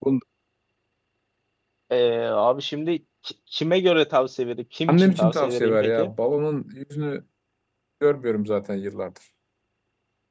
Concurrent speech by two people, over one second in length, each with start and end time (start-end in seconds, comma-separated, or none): 4.9-6.1